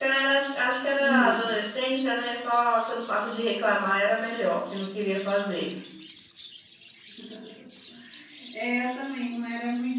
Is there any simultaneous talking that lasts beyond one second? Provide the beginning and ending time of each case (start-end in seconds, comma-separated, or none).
none